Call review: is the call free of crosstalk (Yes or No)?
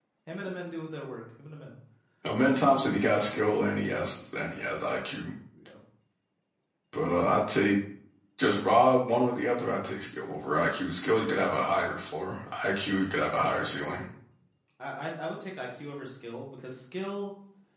Yes